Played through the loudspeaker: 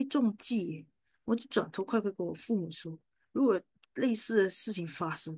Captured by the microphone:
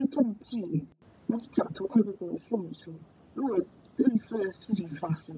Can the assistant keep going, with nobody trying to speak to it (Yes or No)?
Yes